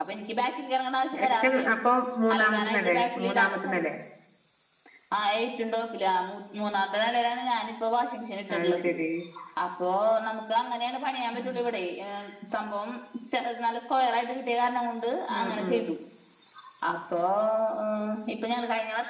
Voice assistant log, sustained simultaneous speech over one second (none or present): present